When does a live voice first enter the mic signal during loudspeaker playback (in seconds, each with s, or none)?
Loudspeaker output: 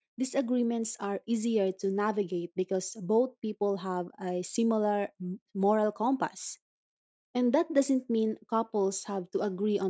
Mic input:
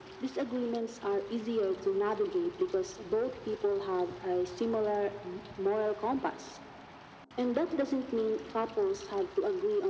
none